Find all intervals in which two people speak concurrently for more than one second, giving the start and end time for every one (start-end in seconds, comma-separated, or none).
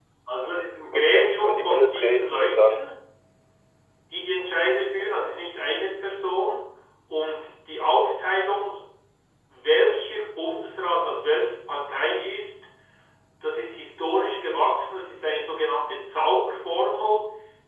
0.9-2.8